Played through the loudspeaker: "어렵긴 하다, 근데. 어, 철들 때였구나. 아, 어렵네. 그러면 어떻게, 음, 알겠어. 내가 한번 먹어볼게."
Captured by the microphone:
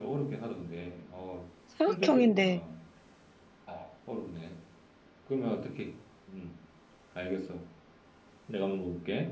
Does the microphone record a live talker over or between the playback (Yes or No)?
Yes